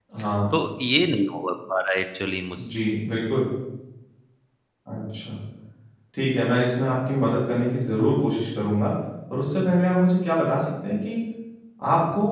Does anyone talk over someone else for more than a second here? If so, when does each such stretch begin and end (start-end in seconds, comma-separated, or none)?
none